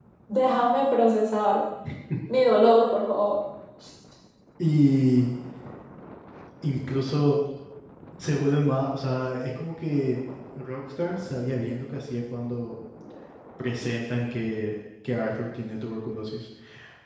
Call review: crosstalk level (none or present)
none